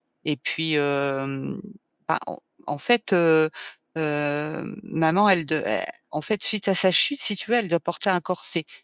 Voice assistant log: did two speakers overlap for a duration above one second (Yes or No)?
No